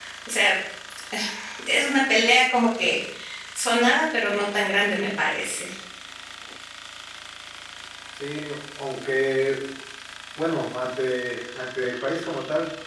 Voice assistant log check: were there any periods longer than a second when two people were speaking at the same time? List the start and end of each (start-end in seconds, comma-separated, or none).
none